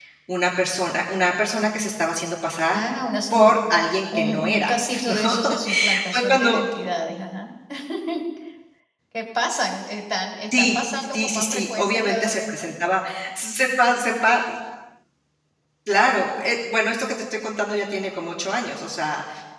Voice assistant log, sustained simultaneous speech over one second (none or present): present